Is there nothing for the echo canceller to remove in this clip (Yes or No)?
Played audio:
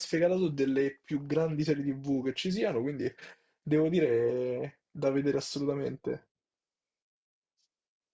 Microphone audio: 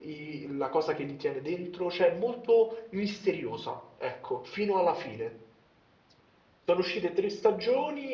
Yes